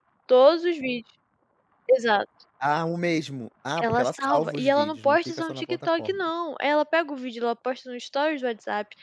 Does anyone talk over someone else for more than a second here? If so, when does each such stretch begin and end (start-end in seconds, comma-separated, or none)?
3.8-6.2